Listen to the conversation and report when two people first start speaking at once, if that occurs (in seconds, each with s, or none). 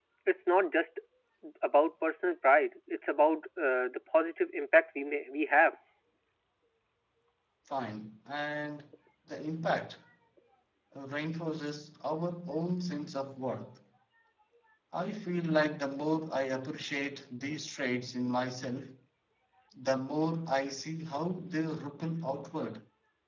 none